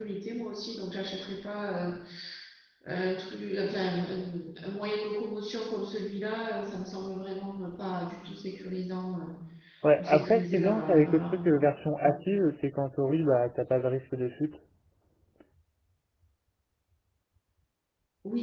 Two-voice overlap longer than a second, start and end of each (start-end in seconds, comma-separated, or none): 10.0-11.6